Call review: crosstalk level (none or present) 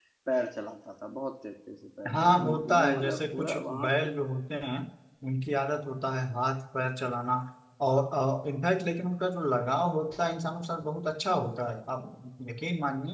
present